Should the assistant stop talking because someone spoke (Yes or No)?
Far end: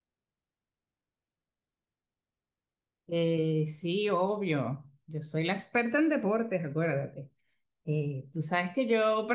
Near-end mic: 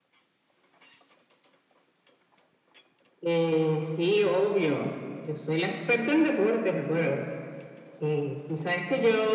No